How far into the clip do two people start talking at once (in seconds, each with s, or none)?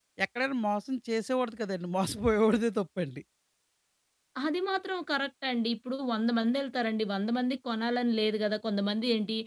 none